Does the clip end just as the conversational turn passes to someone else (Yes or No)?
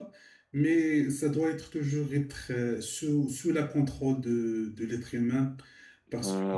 Yes